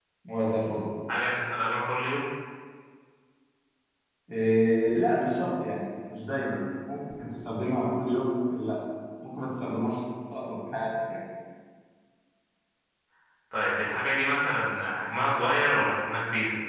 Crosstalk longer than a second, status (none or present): none